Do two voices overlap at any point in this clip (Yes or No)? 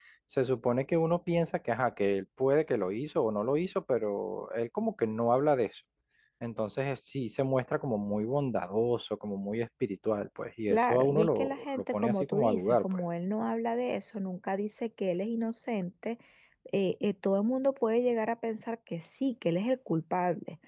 Yes